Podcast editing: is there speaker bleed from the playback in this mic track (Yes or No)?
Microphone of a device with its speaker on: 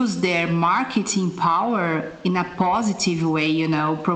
Yes